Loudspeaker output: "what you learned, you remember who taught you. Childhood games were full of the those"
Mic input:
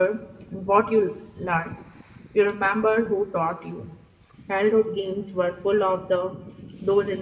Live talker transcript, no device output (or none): none